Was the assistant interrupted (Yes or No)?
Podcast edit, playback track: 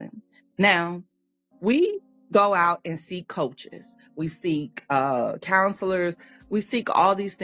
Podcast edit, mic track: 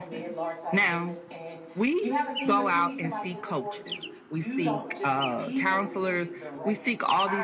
Yes